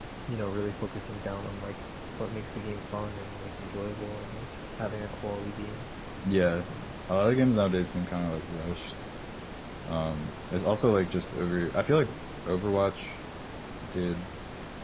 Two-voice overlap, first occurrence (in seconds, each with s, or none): none